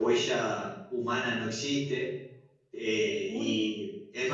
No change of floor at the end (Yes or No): Yes